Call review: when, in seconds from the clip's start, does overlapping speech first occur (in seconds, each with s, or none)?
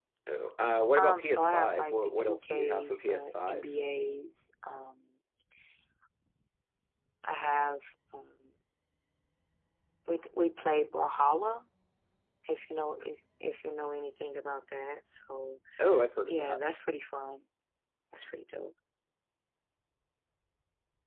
1.0 s